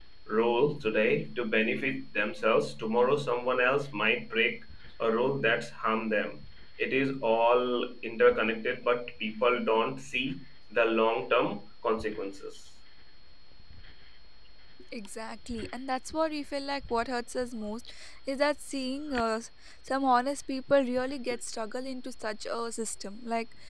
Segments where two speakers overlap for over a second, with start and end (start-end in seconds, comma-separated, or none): none